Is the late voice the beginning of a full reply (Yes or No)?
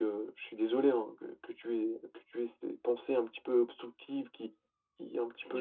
No